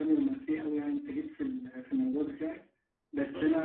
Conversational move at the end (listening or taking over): listening